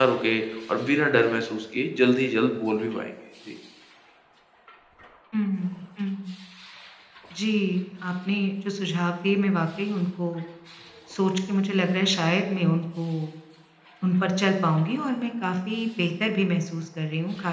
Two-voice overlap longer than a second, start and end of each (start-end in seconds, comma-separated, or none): none